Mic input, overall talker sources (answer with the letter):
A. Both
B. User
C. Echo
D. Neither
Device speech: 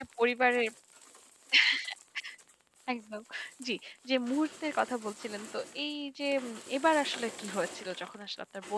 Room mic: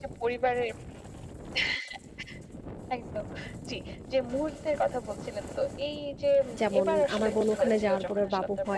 A